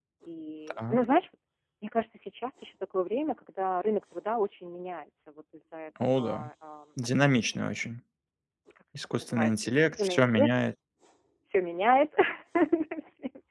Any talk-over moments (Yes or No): Yes